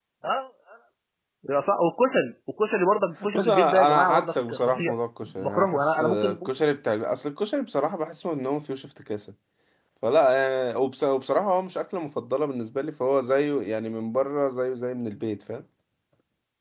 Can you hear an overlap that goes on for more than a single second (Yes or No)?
Yes